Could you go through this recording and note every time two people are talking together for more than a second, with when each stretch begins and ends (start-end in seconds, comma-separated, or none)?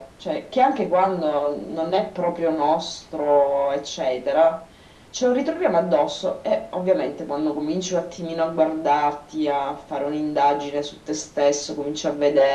none